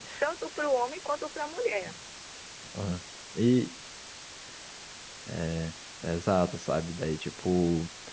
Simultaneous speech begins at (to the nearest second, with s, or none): none